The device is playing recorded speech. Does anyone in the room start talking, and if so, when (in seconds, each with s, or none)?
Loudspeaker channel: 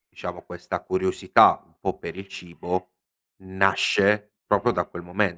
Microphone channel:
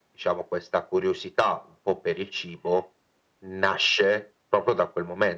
none